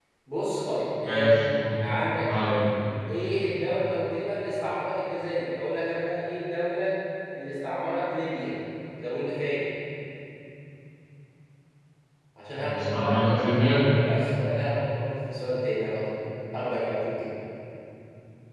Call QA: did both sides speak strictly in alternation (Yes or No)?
No